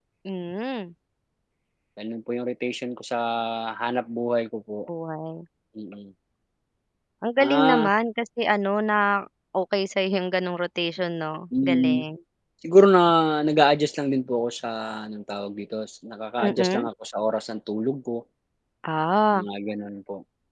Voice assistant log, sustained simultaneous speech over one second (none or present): none